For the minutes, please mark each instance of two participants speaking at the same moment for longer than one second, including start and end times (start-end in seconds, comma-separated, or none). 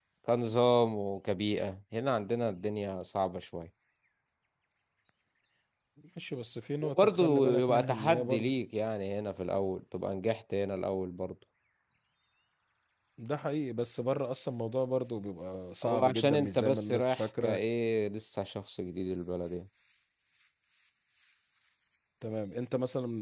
6.8-8.5, 15.8-17.6